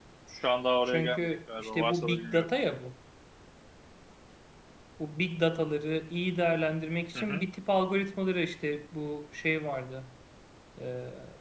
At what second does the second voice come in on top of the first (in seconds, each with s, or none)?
0.9 s